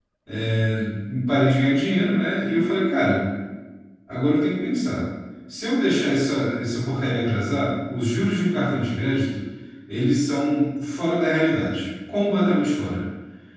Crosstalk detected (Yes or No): No